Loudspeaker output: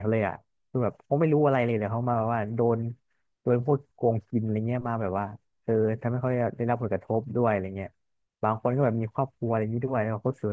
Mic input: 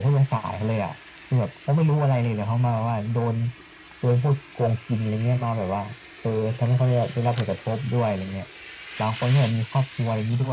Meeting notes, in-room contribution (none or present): none